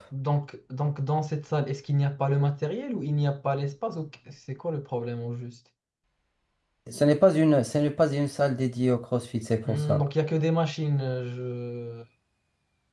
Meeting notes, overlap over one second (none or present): none